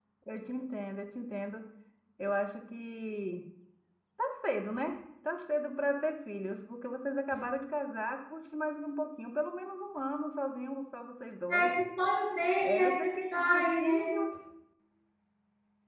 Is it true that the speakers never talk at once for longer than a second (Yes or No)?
No